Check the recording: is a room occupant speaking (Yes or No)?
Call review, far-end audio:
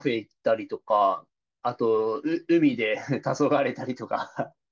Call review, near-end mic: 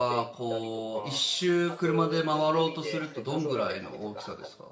Yes